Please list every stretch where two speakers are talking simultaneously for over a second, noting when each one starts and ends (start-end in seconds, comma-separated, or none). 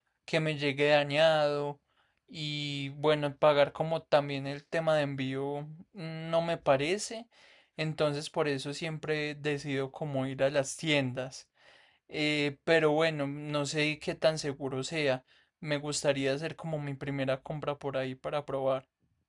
none